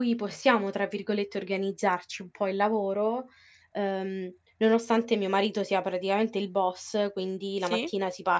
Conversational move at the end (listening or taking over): listening